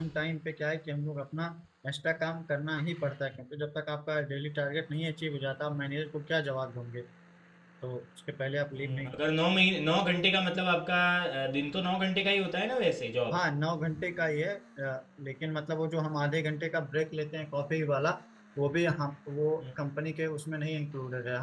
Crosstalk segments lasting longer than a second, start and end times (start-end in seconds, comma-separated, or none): none